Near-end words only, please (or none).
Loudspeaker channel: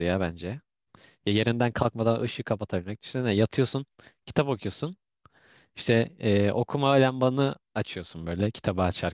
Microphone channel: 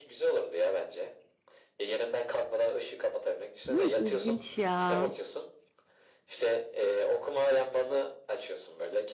Ne İlginç ya.